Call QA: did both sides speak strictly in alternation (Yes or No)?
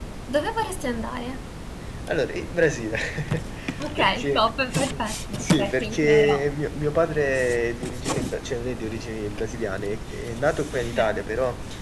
No